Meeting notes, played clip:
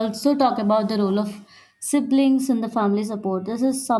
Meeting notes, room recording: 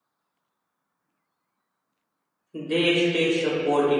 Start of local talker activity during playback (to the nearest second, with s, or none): 3 s